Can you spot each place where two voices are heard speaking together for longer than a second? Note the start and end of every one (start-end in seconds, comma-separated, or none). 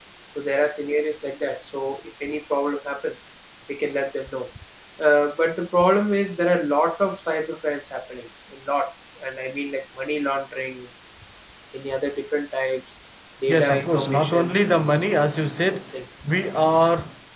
13.5-14.8